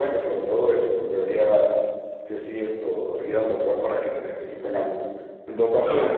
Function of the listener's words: listening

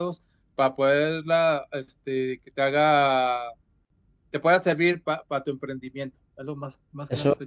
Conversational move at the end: taking over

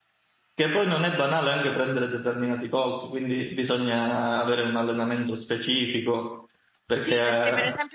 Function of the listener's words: taking over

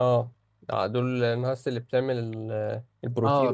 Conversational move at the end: taking over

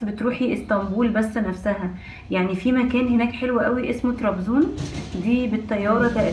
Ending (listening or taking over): listening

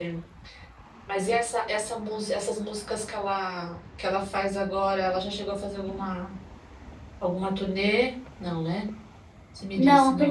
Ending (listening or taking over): taking over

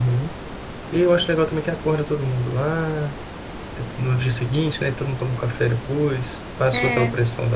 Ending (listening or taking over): listening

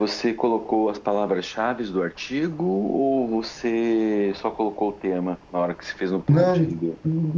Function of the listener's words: taking over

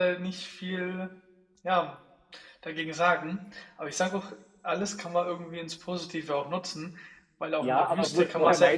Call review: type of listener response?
taking over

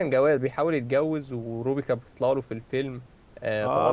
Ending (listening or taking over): taking over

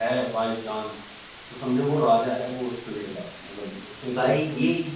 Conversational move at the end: taking over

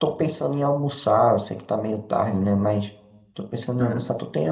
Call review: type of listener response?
listening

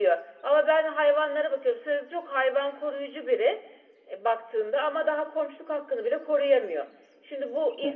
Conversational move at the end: listening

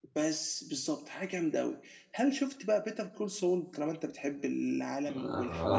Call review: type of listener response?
taking over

